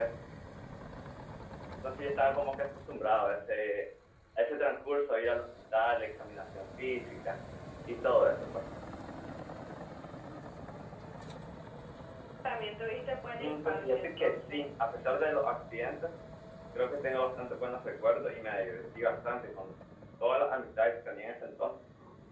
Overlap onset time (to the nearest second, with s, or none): 13 s